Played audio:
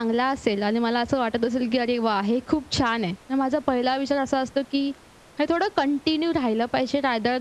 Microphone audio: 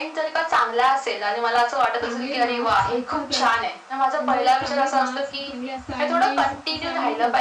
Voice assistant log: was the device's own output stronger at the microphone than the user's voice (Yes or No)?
Yes